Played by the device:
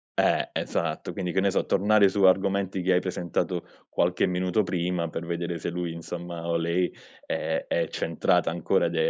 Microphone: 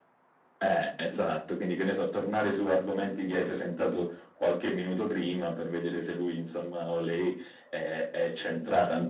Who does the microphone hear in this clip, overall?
echo only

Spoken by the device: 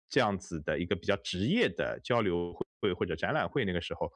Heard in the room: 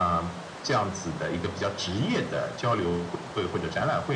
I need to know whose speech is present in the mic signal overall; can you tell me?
echo only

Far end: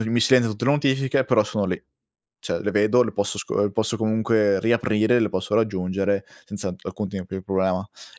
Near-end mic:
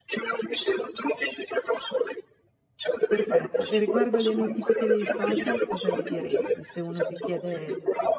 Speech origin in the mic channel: both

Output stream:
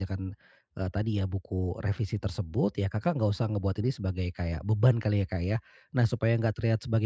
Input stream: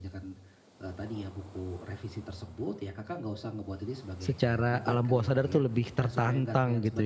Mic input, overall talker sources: both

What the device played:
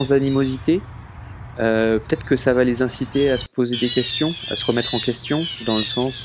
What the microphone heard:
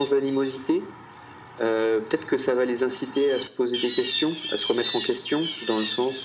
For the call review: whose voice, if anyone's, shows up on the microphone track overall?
echo only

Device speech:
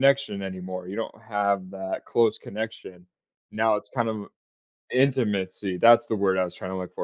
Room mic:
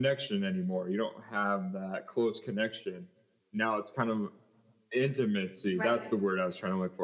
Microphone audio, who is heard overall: both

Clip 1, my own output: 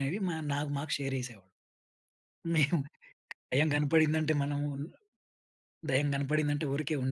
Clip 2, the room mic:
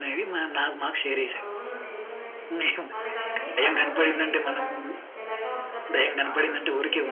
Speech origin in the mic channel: both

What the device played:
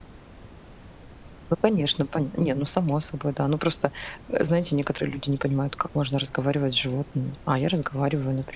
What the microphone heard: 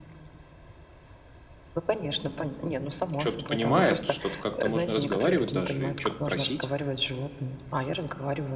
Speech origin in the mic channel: both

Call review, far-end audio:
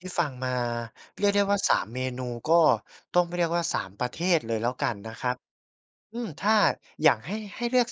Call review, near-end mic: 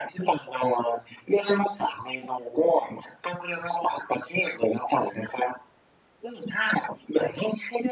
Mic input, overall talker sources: echo only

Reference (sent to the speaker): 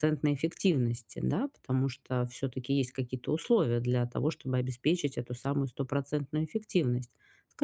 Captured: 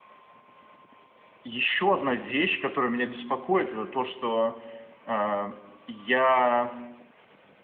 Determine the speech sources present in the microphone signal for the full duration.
user only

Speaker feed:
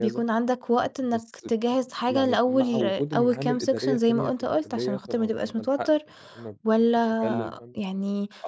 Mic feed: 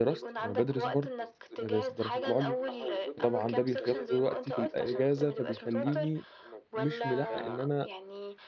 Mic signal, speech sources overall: both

